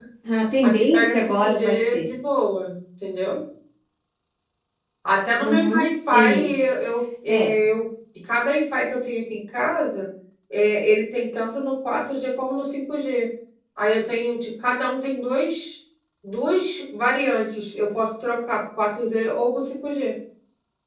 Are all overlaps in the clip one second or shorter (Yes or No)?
No